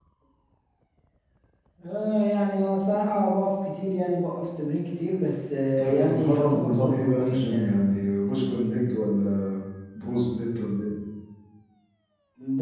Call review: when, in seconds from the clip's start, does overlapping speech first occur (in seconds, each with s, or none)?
5.8 s